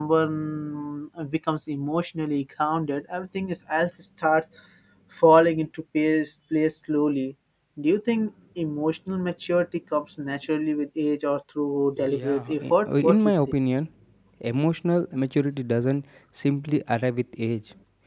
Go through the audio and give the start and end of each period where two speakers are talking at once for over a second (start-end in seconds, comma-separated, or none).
12.1-13.3